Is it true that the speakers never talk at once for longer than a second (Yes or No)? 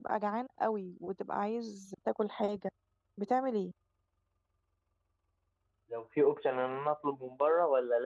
Yes